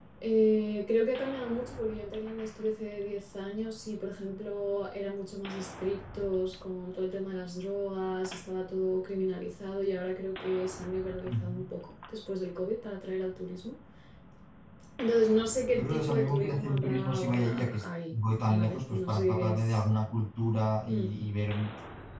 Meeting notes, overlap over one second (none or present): present